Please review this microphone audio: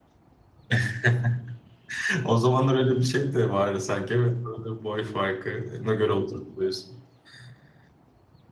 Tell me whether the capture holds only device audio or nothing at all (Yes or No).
No